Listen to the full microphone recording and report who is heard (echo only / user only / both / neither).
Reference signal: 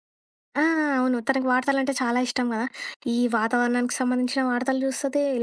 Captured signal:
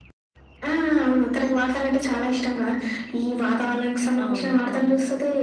both